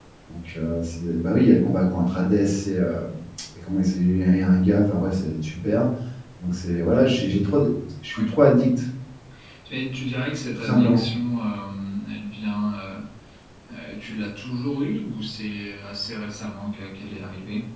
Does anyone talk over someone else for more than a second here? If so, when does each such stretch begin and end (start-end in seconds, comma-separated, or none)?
none